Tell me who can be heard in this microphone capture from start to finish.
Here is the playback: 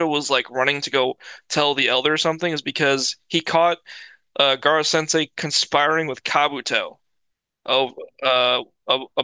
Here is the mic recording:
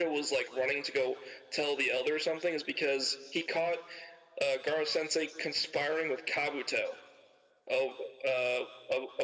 echo only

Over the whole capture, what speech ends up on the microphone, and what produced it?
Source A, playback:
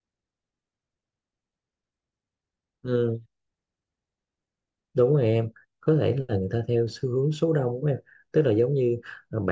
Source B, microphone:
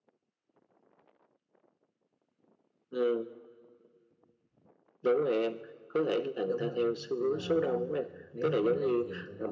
both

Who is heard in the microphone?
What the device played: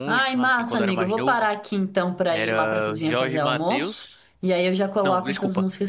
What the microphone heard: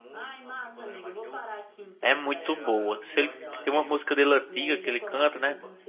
both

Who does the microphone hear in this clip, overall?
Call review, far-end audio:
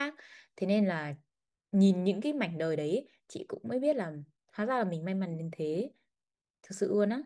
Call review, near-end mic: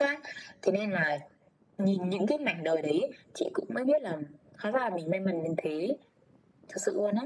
echo only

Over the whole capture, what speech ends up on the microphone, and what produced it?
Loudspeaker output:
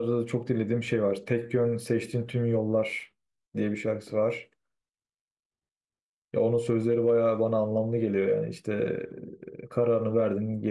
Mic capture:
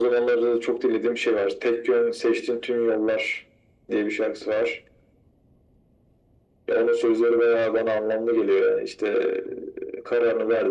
echo only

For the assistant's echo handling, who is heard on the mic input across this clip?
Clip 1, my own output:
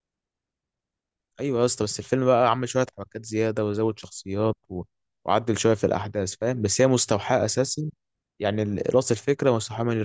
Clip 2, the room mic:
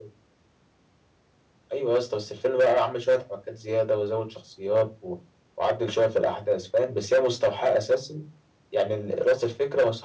echo only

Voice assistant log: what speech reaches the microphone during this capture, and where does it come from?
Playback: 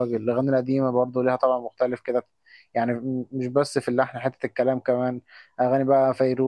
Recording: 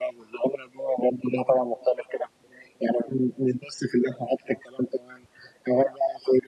echo only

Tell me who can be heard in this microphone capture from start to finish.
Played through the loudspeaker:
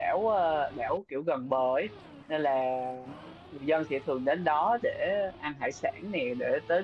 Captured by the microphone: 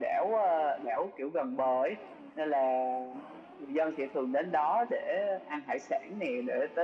echo only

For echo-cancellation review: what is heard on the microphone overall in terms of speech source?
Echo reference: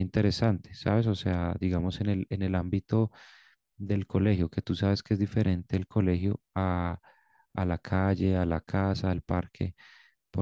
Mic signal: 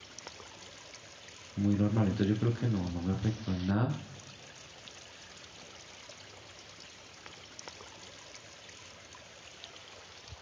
user only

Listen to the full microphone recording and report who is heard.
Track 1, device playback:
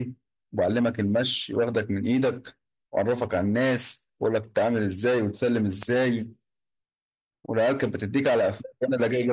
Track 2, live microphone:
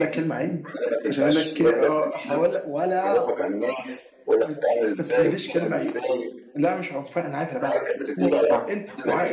both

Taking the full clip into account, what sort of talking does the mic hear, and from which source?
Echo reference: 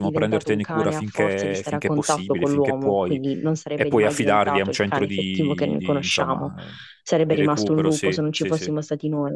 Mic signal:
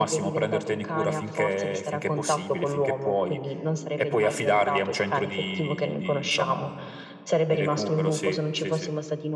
echo only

